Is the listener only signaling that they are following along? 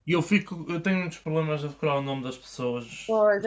No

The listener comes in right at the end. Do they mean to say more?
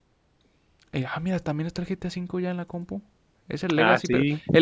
No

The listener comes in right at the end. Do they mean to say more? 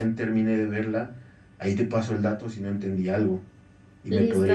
Yes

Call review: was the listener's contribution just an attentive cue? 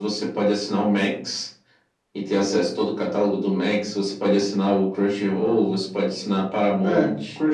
No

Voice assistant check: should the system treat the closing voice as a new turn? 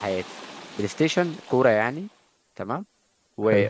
No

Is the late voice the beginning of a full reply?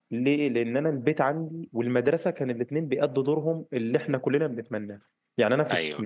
No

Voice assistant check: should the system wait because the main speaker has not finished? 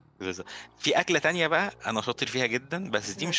Yes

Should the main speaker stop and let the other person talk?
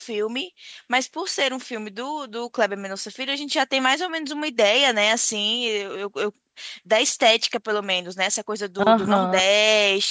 No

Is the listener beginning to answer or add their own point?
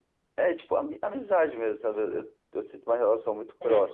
No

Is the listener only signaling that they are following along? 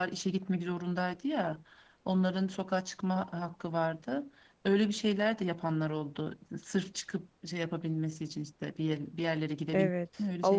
No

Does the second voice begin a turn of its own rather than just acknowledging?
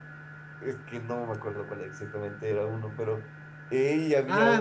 Yes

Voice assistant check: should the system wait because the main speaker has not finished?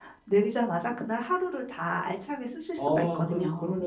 No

